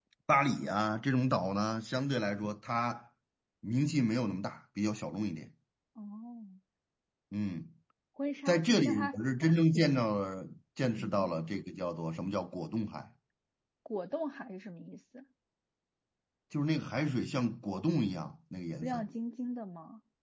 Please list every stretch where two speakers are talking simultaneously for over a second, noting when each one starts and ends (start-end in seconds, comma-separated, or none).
8.5-9.9